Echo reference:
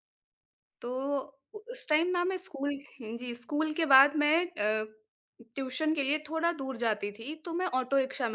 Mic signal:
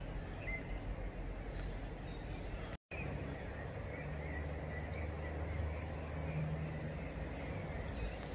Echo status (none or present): none